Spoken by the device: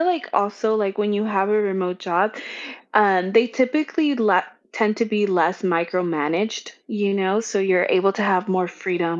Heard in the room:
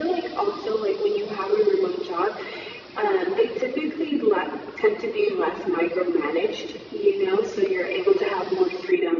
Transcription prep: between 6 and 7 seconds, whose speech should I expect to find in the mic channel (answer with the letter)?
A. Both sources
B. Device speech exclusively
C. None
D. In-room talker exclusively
B